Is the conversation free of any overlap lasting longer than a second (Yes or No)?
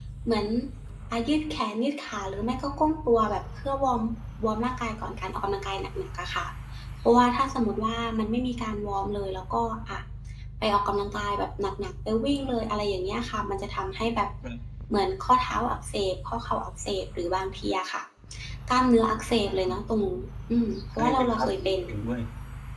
Yes